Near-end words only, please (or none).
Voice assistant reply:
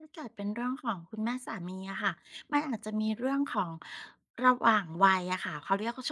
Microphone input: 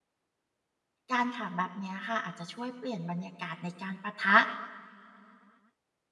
การถามแบบเนี้ยค่ะอาจจะช่วยเปลี่ยนบรรยากาศในการปะทะ